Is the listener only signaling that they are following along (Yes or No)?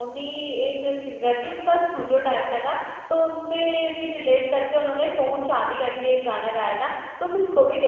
Yes